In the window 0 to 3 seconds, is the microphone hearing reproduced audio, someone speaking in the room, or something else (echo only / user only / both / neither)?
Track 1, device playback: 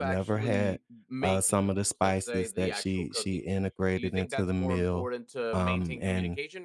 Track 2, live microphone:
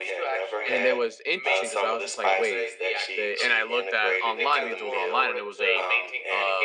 both